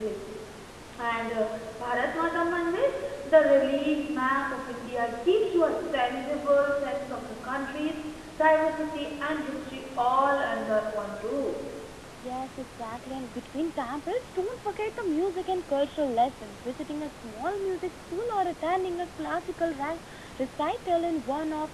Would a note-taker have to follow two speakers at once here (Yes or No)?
No